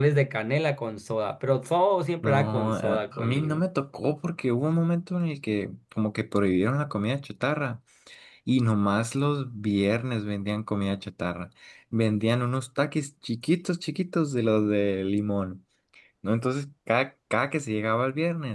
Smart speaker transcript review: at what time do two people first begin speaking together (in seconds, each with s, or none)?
2.2 s